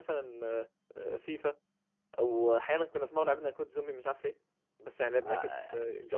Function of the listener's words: taking over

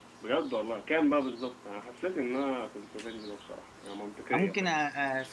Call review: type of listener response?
taking over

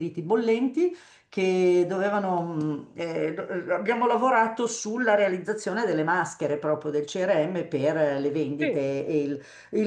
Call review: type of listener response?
listening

